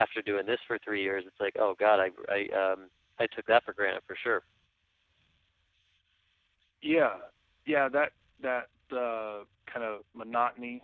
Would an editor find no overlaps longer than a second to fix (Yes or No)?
Yes